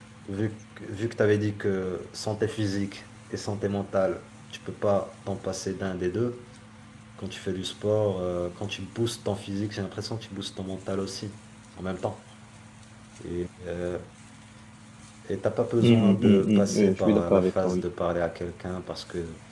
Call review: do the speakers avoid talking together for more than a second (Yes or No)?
No